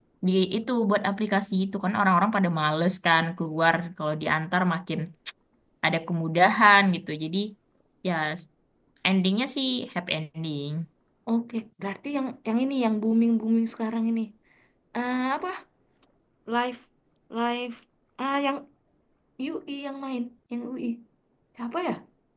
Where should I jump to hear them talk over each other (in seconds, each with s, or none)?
none